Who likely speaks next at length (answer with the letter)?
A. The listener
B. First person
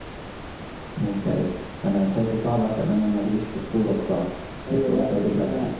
A